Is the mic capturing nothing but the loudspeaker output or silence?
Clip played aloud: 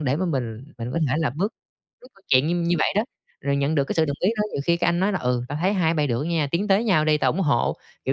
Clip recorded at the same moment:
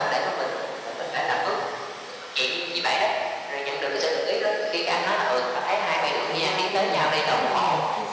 No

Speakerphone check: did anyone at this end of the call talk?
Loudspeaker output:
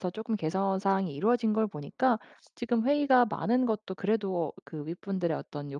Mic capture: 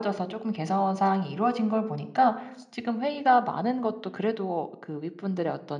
No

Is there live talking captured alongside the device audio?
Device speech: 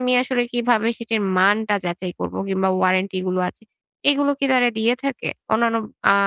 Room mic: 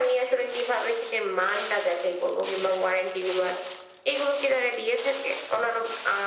No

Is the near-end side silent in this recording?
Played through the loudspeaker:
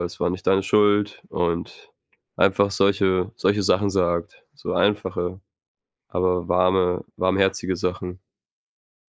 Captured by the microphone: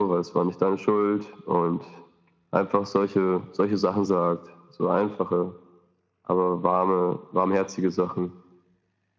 Yes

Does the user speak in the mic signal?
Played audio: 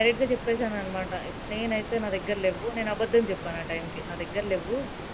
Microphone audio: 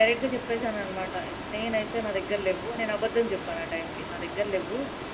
No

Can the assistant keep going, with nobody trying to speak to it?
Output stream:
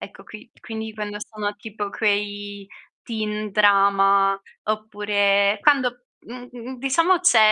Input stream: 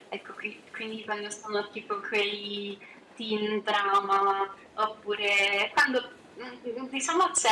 Yes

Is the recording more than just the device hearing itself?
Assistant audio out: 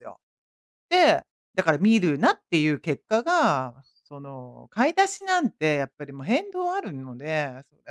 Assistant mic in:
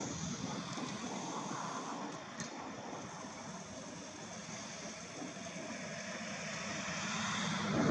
No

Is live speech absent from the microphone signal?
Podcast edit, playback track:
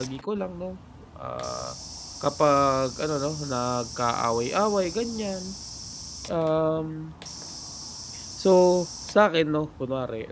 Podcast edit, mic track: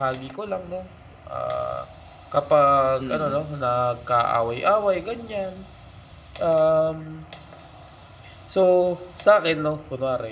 No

